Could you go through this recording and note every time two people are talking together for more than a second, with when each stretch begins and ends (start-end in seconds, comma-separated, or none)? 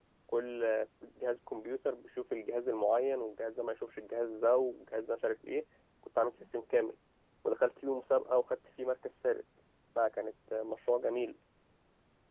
none